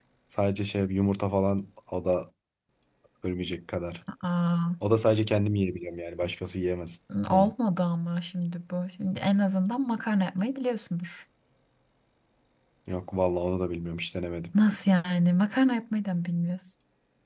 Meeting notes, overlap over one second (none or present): none